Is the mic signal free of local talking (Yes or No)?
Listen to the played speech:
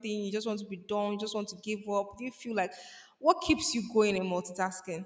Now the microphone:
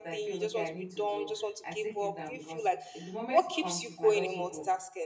No